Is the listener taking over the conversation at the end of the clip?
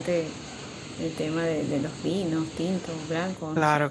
Yes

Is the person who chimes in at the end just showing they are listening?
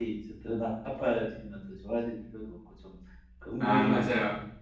Yes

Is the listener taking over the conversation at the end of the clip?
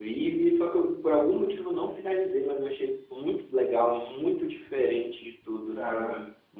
No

